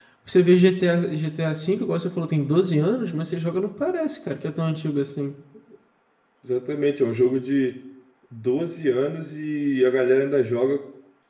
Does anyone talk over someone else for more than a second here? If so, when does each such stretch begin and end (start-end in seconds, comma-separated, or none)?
none